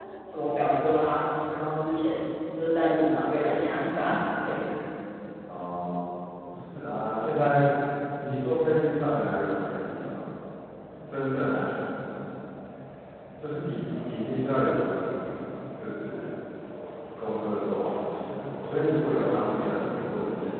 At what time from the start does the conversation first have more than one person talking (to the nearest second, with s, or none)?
none